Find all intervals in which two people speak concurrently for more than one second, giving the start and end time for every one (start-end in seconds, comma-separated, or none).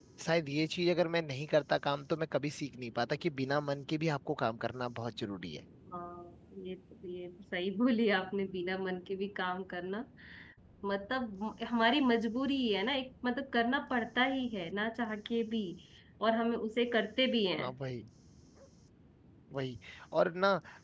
none